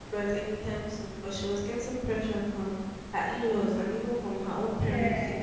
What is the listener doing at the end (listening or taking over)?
listening